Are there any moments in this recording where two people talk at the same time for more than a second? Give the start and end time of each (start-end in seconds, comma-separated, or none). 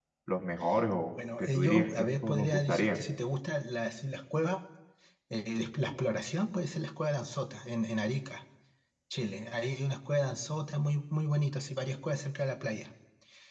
1.4-3.0